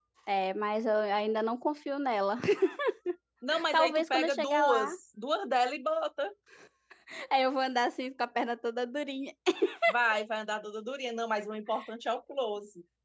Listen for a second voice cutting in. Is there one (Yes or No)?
Yes